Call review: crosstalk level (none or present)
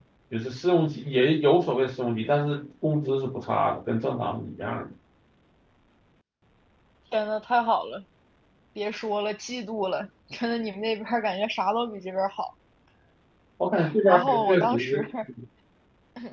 present